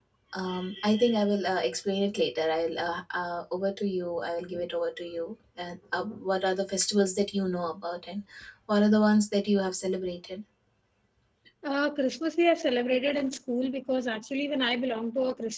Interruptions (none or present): none